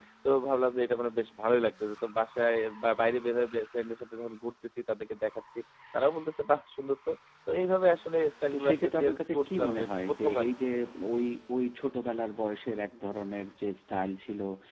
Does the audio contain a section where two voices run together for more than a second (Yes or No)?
Yes